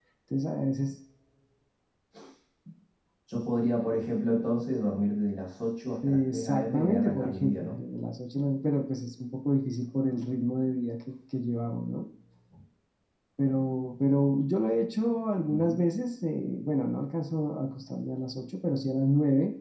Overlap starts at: 6.1 s

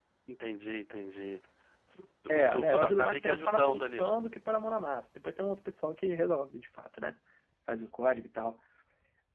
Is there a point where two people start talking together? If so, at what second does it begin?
2.3 s

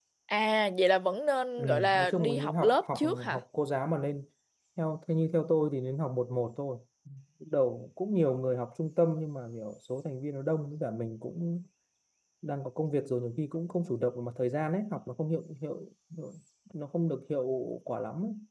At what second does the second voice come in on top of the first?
1.6 s

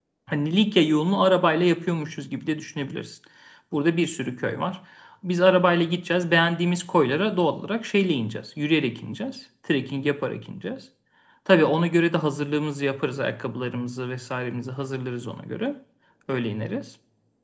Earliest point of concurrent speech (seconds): none

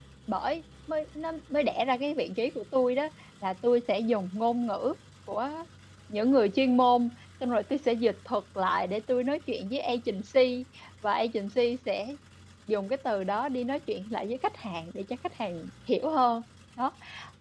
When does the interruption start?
none

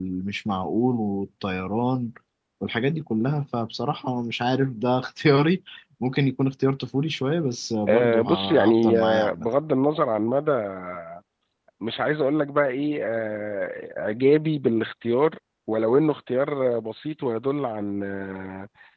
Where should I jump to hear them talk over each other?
7.9 s

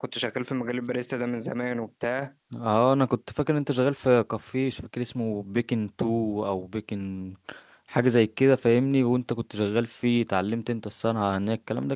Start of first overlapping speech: none

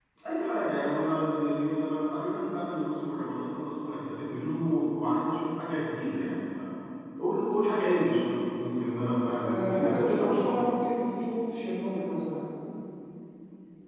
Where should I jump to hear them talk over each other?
9.4 s

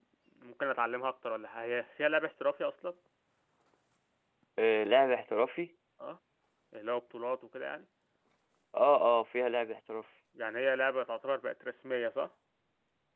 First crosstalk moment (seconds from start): none

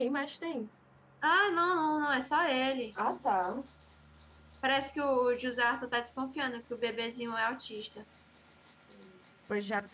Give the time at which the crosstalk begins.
none

